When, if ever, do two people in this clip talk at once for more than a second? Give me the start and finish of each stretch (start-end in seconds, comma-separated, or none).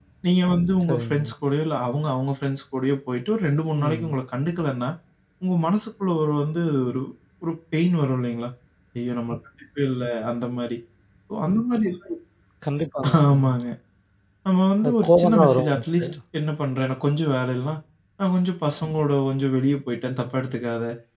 14.8-16.1